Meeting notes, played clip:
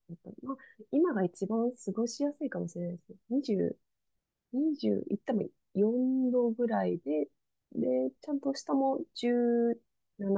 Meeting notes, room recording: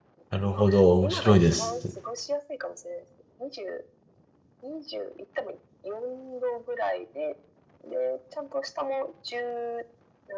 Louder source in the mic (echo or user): user